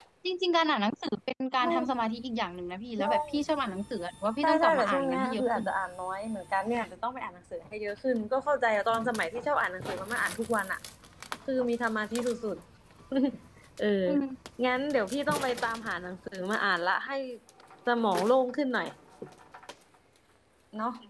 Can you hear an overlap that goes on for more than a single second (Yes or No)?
Yes